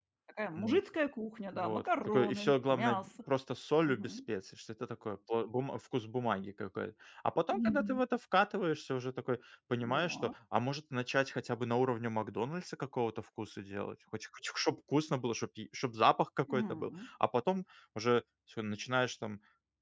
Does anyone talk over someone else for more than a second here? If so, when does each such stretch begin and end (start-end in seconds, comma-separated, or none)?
1.5-3.1